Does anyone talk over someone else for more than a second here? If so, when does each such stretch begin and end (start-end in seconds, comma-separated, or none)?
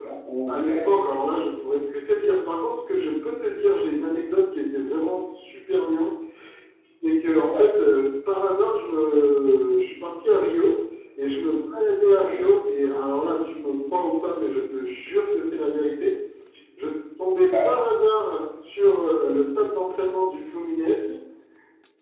none